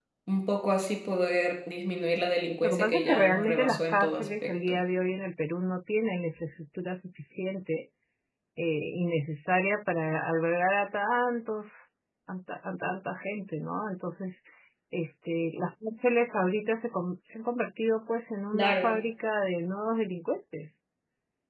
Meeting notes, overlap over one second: present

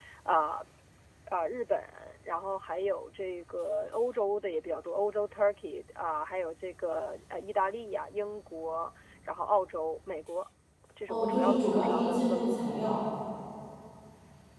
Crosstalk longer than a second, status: present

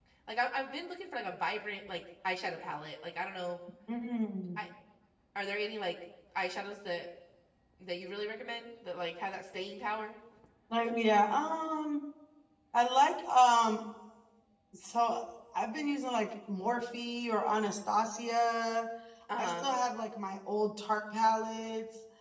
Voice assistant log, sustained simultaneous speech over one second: none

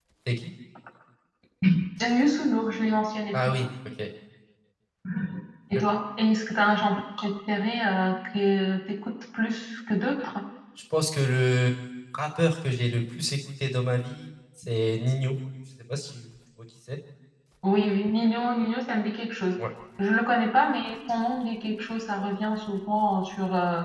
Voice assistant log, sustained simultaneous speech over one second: none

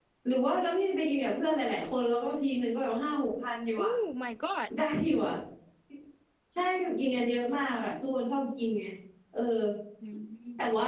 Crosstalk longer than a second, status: none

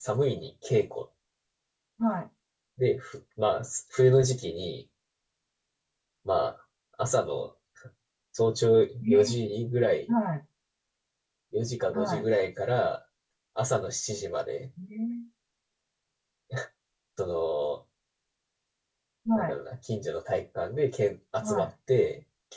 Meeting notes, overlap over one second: none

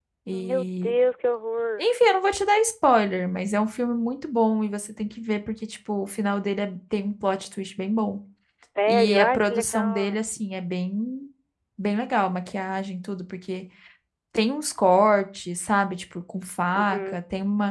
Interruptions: present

